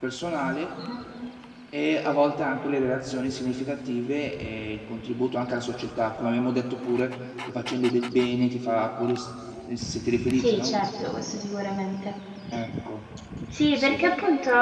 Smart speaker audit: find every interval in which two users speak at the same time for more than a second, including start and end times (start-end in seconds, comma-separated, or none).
none